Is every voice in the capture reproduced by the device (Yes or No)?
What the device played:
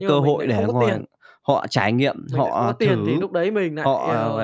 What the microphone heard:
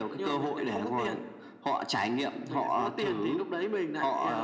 Yes